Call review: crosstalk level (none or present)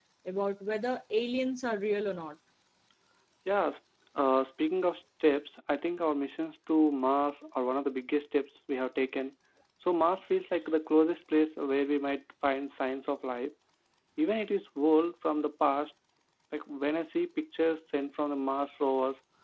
none